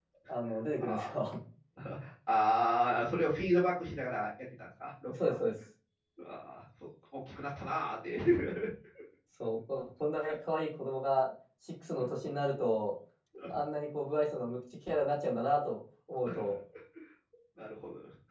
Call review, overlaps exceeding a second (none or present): none